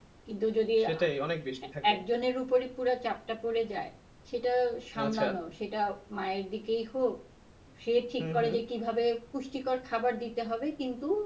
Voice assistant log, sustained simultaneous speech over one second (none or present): none